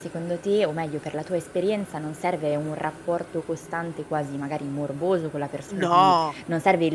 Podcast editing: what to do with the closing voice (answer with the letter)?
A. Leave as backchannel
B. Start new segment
A